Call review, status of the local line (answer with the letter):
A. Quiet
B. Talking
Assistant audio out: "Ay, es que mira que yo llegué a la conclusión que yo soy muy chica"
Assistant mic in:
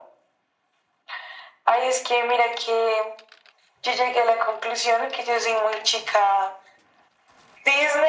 A